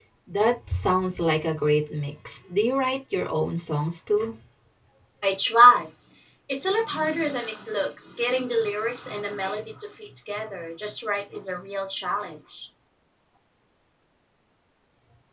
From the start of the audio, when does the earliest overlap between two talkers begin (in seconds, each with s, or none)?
none